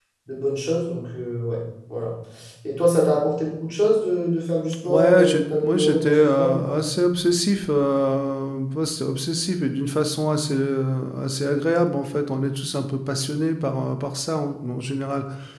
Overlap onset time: 4.8 s

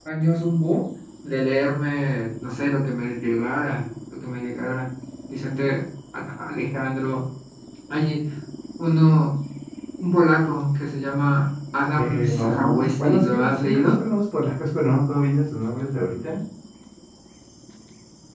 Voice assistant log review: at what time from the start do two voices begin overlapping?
12.0 s

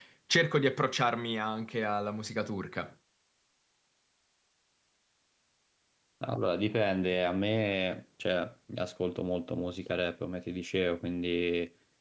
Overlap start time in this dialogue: none

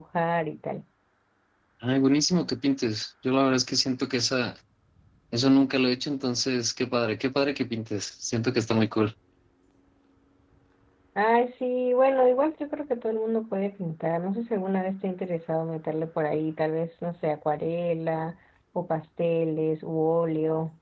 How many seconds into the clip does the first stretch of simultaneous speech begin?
none

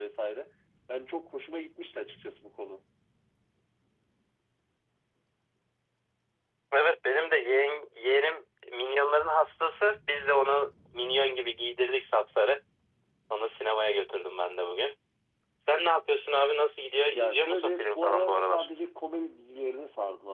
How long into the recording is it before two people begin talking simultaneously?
17.1 s

